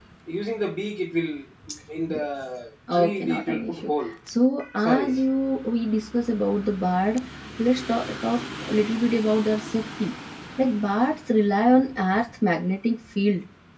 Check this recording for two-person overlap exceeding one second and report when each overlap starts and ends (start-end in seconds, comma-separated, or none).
2.9-4.1